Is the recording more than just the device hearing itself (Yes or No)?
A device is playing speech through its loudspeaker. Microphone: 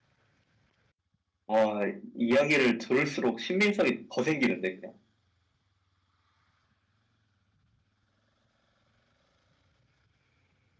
Yes